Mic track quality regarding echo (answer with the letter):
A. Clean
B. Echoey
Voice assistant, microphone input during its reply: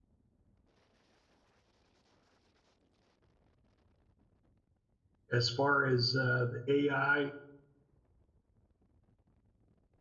A